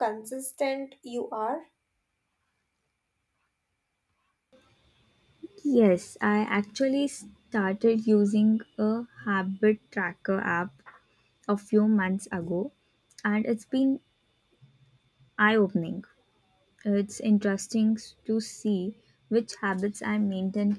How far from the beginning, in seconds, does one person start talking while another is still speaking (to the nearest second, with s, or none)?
none